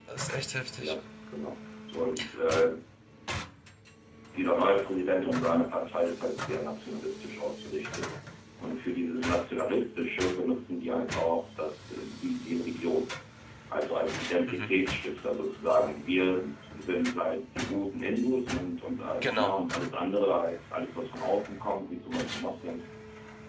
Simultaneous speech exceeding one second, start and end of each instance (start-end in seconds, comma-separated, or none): none